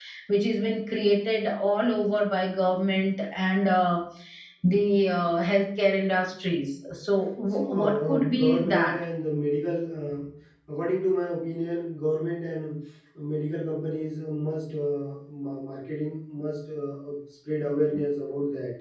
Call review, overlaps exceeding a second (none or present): present